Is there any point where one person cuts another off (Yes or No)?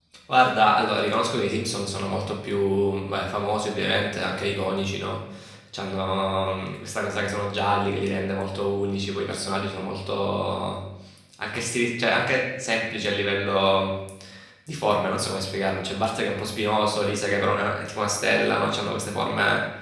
No